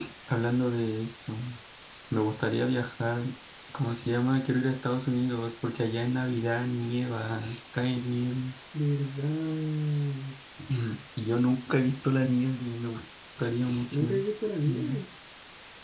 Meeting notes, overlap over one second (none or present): none